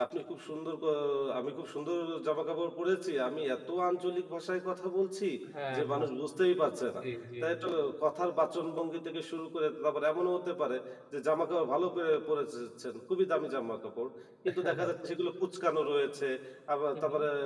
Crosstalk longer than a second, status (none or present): none